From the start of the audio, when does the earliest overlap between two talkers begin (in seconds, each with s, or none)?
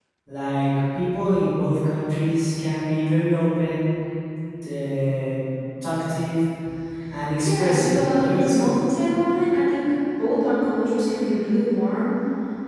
7.4 s